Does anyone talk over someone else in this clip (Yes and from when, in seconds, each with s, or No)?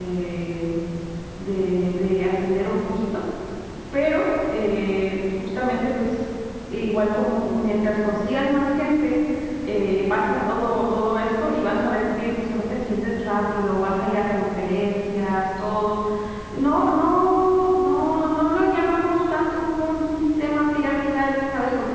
No